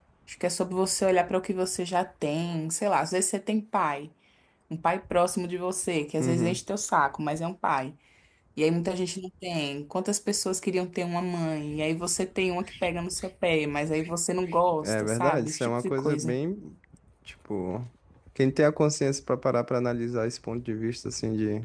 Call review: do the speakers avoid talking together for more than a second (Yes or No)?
No